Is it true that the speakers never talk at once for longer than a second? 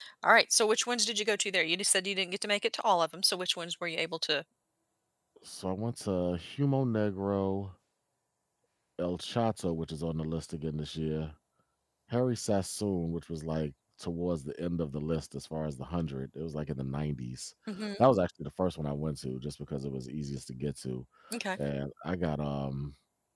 Yes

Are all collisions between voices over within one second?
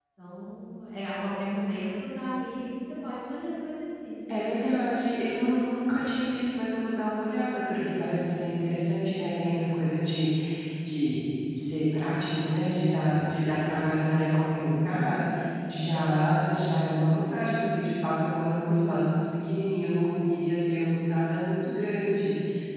Yes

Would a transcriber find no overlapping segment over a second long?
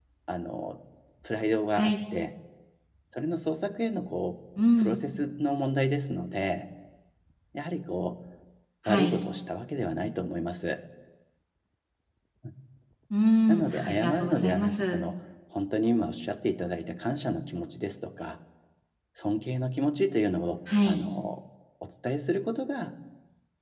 No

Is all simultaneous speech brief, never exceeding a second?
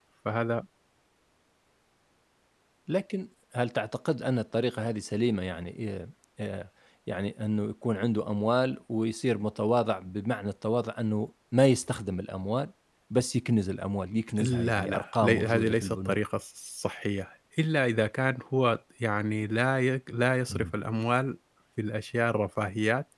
No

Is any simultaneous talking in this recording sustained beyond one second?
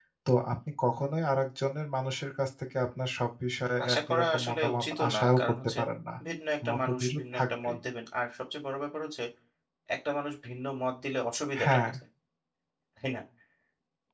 Yes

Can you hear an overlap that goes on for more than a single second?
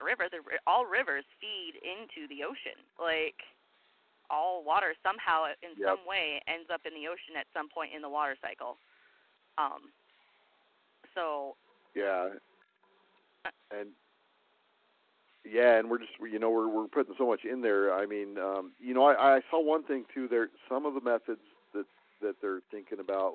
No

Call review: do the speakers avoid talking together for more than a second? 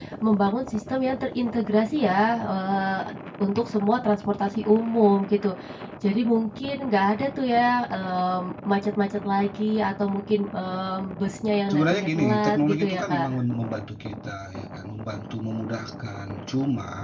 No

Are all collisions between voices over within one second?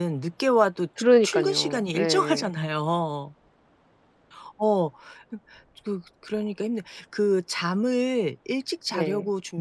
No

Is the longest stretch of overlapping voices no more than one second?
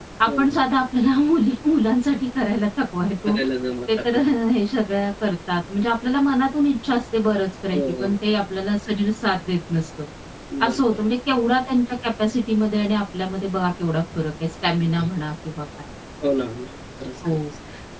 Yes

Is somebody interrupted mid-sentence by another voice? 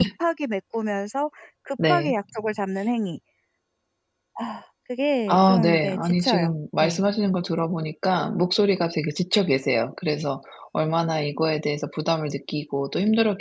Yes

